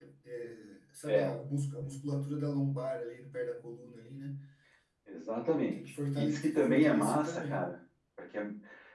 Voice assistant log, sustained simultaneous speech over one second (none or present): present